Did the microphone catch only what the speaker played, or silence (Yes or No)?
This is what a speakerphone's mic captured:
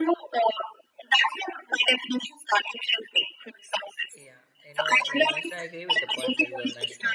No